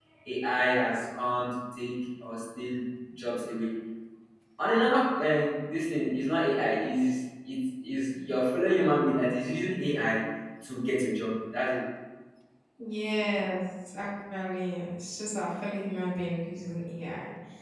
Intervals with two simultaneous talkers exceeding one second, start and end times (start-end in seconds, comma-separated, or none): none